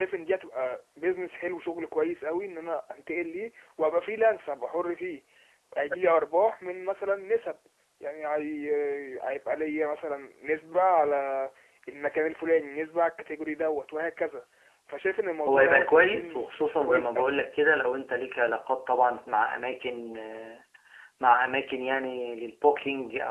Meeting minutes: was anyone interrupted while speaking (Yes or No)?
Yes